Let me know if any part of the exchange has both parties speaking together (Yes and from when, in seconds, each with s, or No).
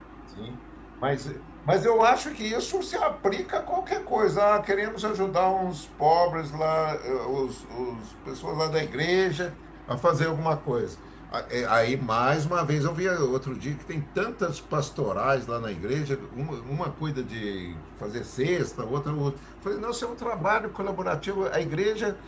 No